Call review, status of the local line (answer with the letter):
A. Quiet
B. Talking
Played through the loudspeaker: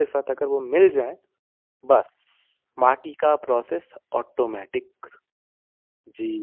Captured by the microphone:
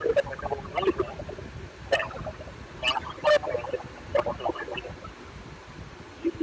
A